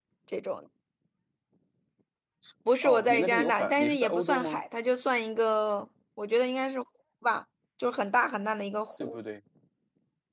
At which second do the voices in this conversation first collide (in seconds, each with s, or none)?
2.8 s